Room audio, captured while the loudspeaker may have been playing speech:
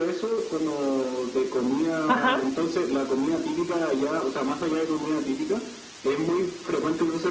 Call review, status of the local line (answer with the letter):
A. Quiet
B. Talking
B